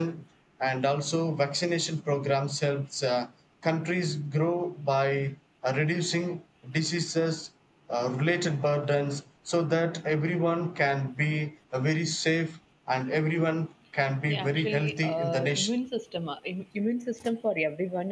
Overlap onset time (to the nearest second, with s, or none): 14 s